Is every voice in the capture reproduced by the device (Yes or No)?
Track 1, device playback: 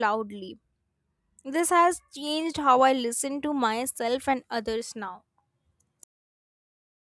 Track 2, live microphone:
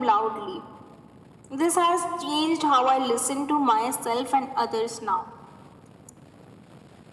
Yes